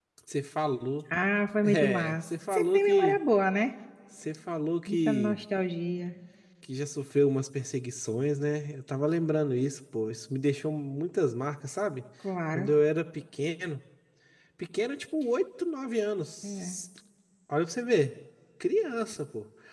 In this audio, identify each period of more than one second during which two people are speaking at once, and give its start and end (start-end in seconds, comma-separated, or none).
1.6-3.2